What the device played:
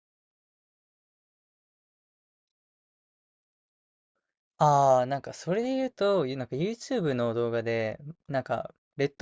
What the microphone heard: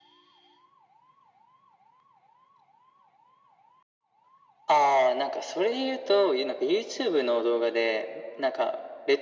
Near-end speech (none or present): none